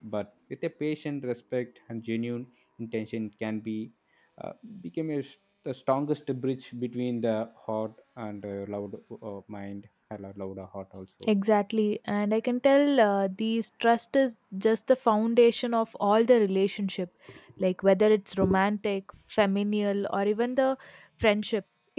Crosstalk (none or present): none